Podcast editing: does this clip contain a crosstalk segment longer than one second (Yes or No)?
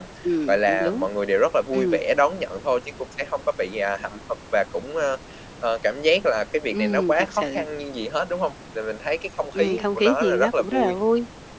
Yes